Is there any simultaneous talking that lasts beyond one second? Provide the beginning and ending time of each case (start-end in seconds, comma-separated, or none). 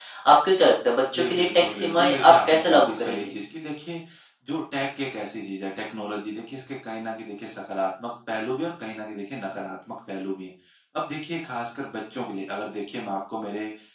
1.1-3.3